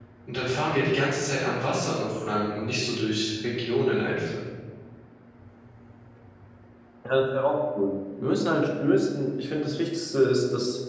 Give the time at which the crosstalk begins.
none

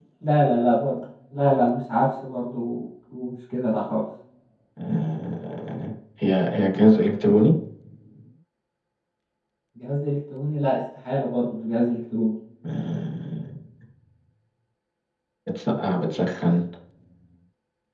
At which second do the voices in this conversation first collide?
none

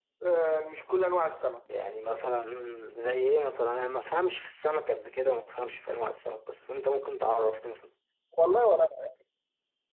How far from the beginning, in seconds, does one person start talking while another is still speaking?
none

